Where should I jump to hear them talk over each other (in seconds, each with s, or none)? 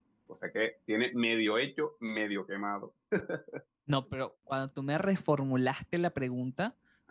none